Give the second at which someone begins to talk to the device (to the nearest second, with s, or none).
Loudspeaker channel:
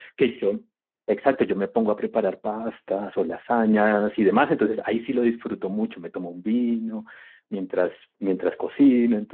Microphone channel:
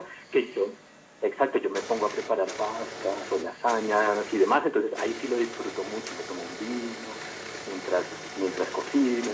none